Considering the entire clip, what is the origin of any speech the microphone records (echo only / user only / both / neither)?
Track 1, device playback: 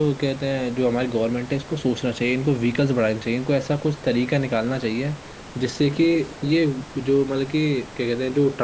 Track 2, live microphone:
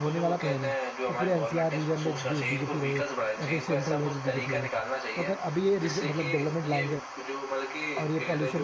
both